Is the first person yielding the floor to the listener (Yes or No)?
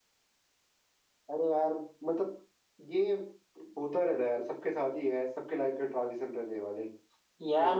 Yes